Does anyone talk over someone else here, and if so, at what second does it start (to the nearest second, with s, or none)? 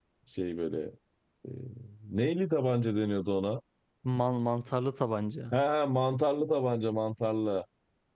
none